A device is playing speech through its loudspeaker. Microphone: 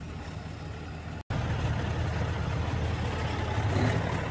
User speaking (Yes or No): No